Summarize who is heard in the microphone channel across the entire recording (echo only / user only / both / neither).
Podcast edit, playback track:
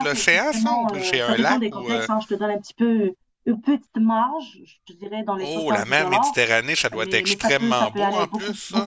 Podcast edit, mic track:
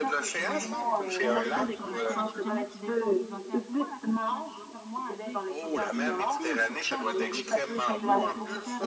both